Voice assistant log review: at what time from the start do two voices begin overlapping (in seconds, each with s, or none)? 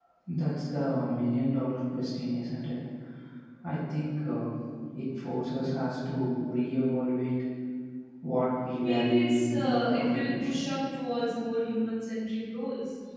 8.8 s